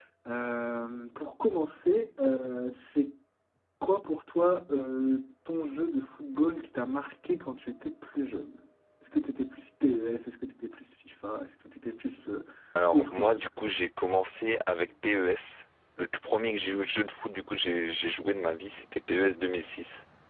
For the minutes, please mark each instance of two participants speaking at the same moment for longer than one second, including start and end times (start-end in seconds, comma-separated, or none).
none